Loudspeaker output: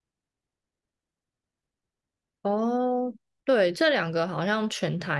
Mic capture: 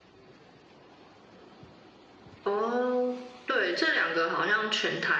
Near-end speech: none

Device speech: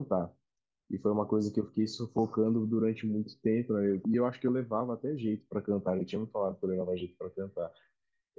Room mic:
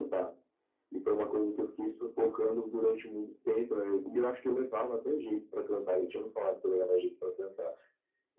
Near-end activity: none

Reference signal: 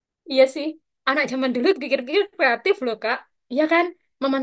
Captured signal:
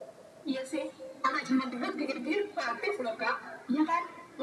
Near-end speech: none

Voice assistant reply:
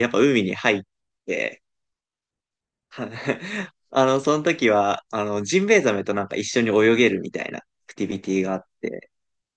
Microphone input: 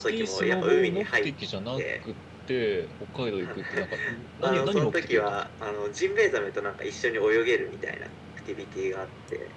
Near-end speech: present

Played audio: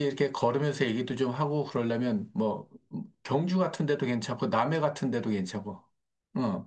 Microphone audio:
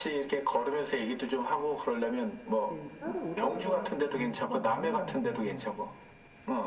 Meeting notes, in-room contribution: present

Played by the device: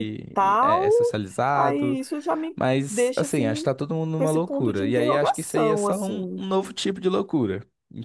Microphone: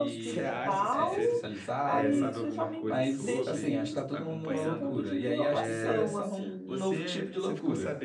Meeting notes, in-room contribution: present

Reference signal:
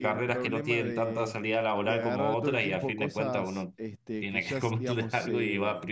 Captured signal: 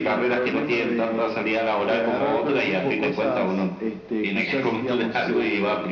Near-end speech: none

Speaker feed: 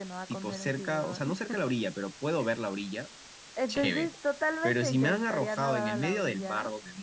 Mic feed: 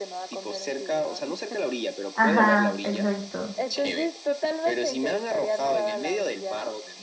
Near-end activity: present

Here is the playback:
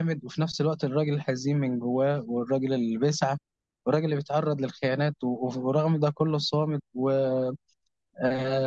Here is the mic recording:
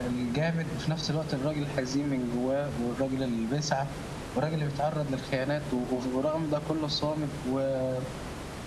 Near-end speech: none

